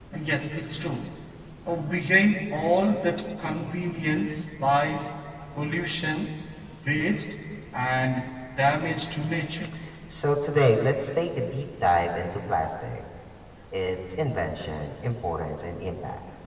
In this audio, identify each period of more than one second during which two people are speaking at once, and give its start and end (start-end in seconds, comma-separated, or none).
none